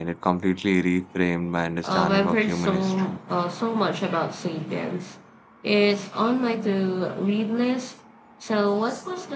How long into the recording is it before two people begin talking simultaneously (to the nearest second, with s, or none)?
2 s